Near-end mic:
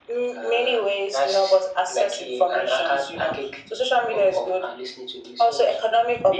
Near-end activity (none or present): none